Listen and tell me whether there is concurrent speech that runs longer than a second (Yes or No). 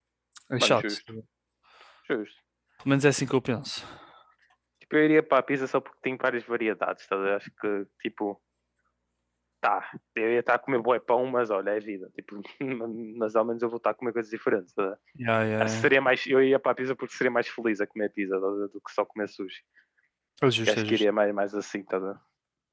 No